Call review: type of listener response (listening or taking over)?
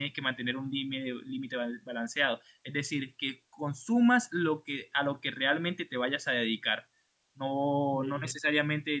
listening